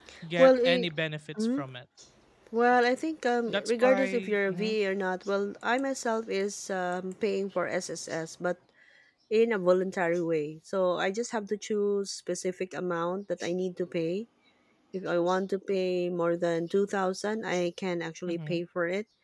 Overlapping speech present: Yes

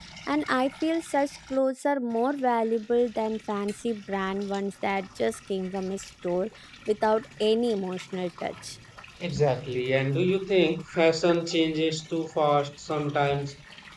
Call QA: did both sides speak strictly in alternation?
Yes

